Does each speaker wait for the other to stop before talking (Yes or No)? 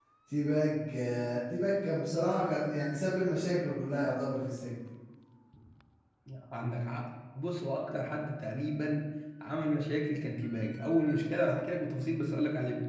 Yes